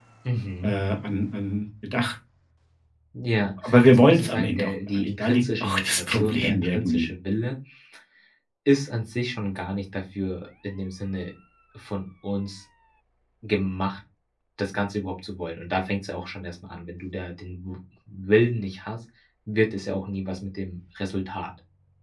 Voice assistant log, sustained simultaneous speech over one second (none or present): present